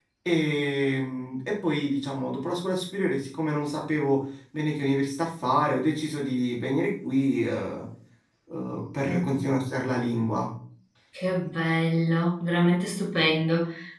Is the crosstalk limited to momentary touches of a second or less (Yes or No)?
Yes